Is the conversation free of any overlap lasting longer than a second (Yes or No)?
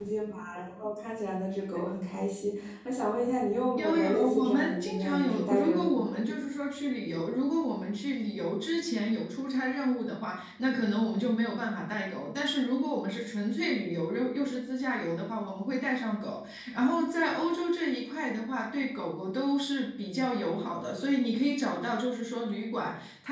No